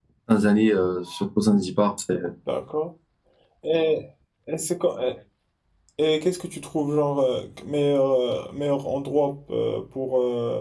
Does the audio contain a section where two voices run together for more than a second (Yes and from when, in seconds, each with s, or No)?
No